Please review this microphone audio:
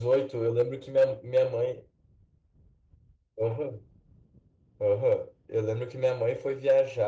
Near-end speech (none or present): present